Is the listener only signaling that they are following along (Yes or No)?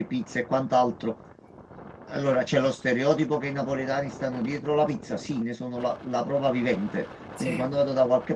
Yes